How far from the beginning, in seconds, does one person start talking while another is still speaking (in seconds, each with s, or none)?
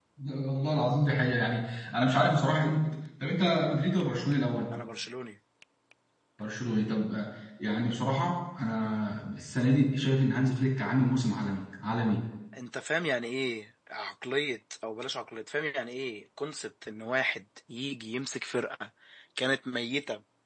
none